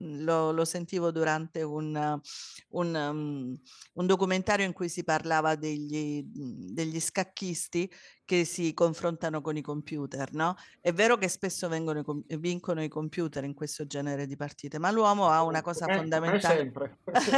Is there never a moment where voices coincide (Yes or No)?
No